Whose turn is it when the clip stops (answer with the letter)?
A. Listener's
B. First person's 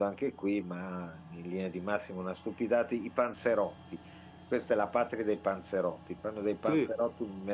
B